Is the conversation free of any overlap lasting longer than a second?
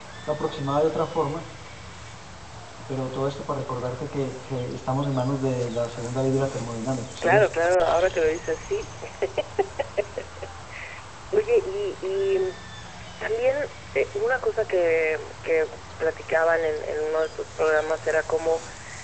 Yes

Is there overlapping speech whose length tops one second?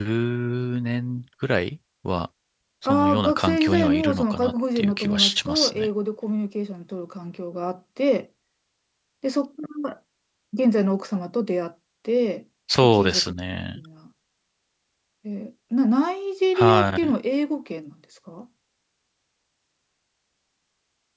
Yes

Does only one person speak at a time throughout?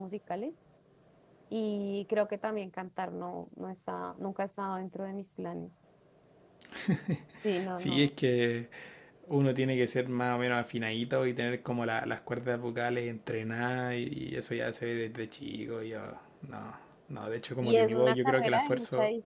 No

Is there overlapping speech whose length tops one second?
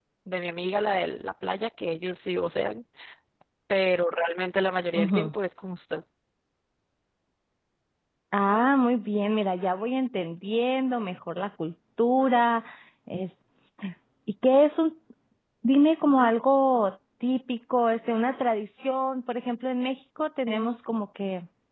No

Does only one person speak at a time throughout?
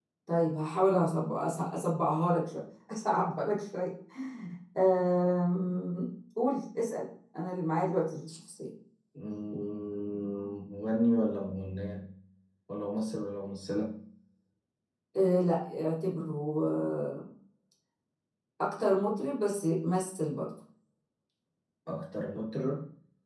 Yes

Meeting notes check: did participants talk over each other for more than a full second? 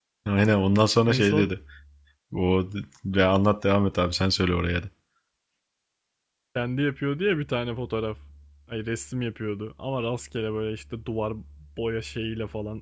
No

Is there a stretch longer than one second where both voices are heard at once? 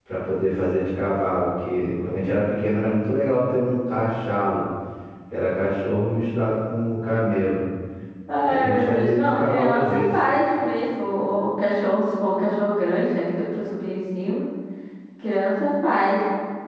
Yes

